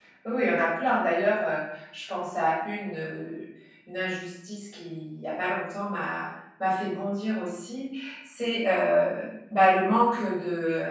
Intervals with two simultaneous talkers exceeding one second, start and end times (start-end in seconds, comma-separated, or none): none